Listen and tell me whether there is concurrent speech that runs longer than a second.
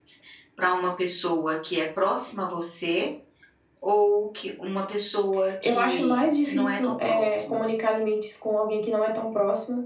Yes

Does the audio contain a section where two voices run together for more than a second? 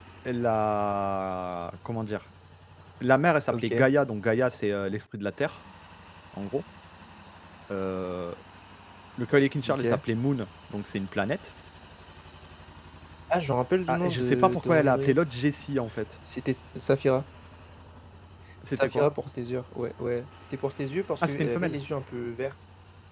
Yes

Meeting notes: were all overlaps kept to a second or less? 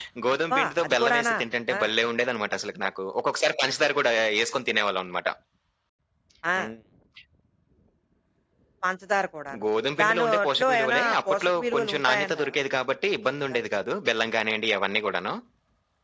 No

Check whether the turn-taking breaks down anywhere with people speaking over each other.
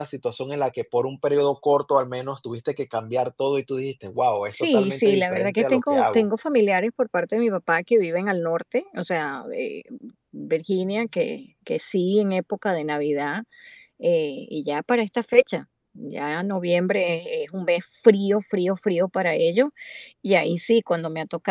Yes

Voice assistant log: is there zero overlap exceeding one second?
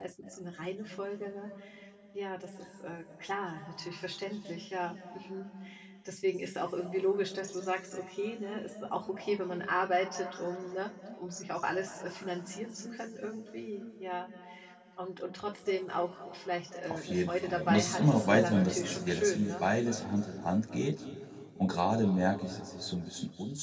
No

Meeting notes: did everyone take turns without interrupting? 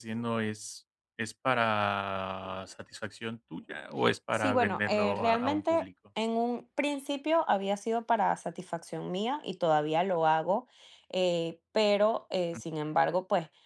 No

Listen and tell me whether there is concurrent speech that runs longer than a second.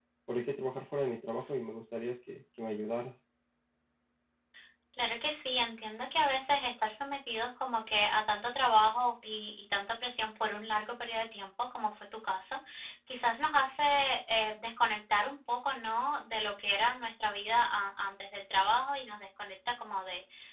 No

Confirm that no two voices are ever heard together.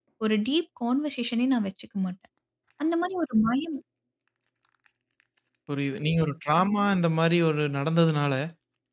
Yes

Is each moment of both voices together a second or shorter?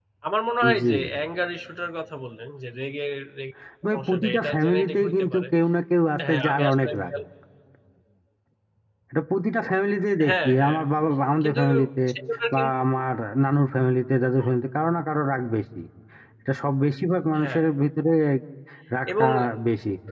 No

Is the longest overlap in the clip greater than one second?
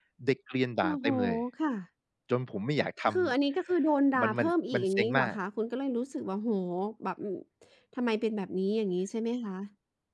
Yes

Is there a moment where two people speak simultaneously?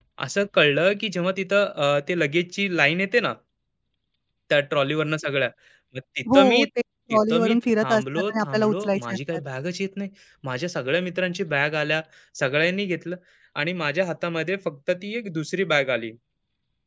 Yes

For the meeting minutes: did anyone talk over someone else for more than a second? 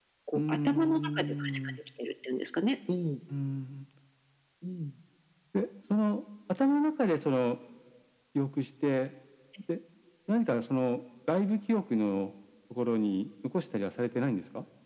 Yes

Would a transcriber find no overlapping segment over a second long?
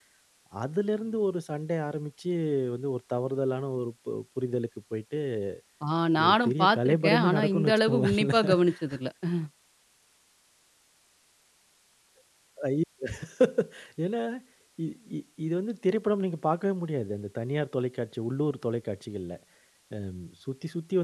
No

